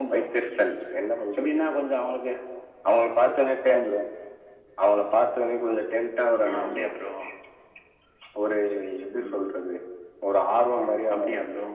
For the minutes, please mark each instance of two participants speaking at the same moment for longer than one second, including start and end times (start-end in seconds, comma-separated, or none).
none